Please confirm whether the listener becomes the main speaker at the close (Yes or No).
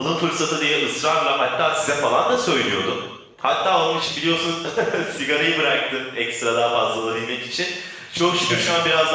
No